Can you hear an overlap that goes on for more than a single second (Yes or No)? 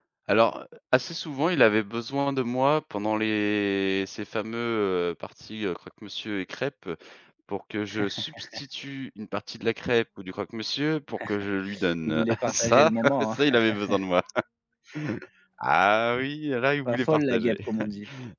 Yes